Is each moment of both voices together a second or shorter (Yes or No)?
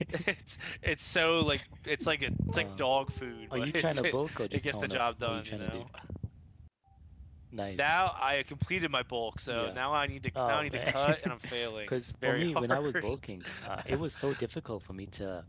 No